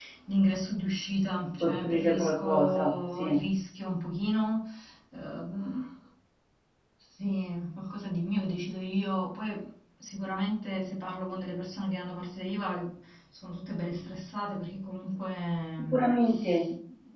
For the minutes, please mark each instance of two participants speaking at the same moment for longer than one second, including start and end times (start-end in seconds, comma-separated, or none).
1.6-3.4